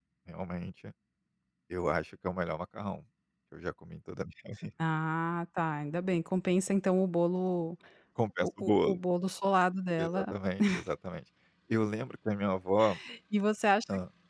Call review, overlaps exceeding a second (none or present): none